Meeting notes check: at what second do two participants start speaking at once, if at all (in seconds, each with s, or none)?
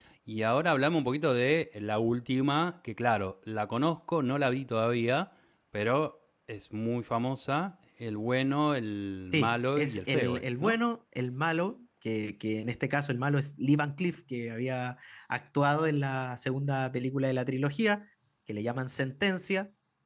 9.3 s